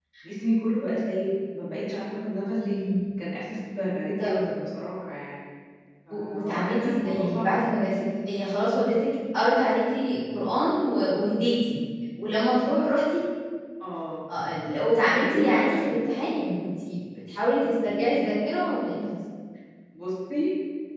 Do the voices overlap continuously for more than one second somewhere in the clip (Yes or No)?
Yes